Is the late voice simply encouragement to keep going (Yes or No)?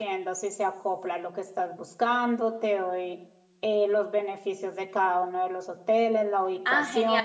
No